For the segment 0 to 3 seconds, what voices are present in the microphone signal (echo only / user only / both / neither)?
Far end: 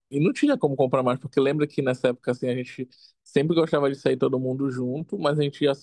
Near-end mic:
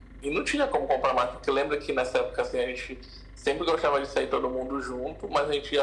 echo only